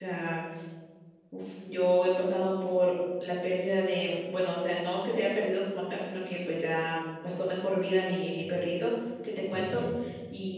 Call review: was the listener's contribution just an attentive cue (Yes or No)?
Yes